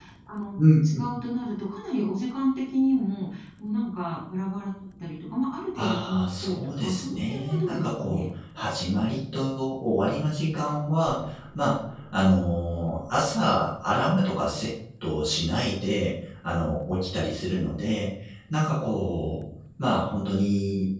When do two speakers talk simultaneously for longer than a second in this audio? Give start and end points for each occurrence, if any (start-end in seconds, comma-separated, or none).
5.8-8.2